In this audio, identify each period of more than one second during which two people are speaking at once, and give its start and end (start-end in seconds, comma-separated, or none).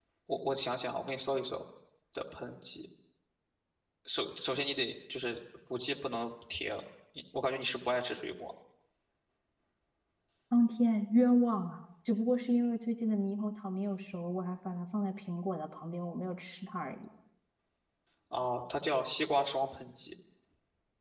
none